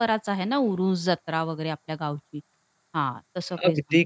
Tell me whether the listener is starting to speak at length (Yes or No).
Yes